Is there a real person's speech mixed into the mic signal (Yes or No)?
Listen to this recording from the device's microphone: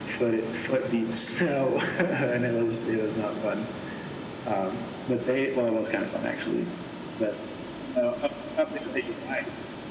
No